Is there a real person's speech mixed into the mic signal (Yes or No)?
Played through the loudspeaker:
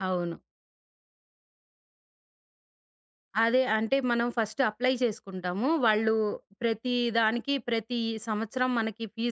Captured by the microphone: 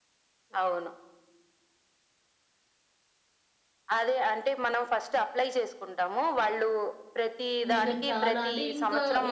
Yes